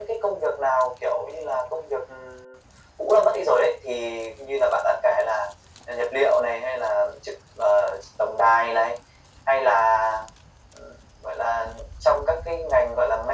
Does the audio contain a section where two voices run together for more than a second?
No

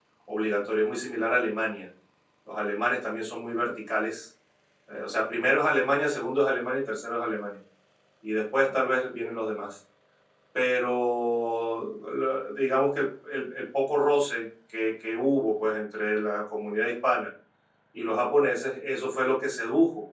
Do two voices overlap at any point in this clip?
No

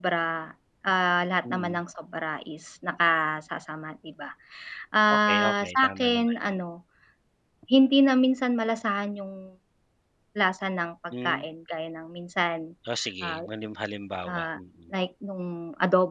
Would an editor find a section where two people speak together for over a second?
Yes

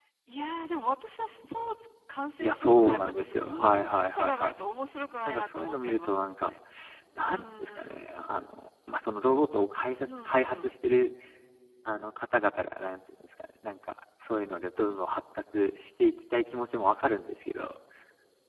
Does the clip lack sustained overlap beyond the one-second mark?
No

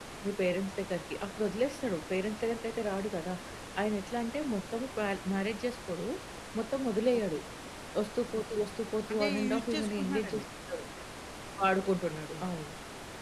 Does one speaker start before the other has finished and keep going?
Yes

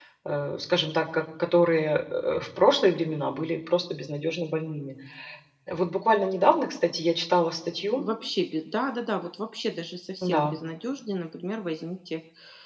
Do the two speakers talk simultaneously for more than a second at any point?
No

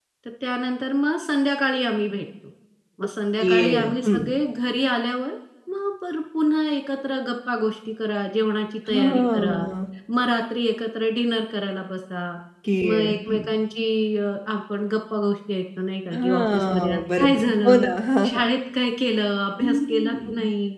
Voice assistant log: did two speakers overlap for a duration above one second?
Yes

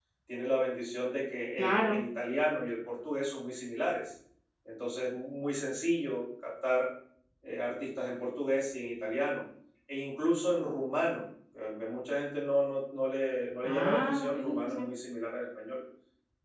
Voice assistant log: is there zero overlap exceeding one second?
No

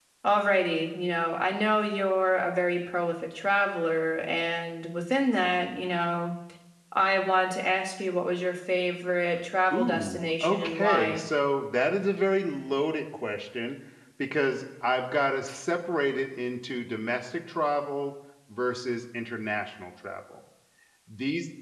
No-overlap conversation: No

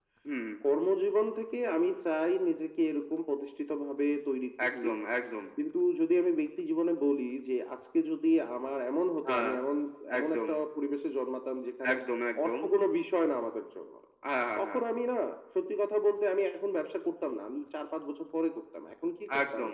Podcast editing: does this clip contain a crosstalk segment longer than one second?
No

